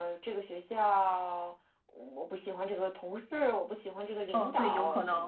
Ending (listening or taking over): taking over